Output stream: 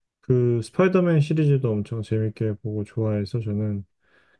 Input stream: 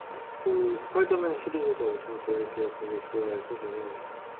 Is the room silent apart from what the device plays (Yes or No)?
Yes